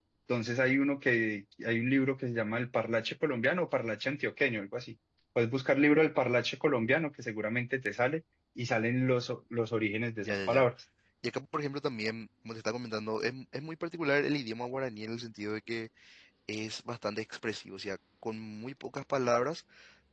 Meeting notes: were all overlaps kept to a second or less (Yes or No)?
Yes